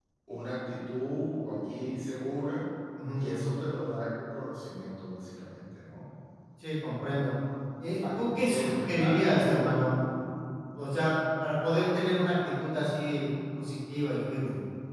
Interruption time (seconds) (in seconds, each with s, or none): 8.0 s